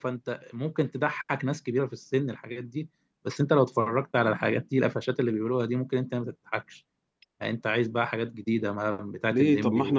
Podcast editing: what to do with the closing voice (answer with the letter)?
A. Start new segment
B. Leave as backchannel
A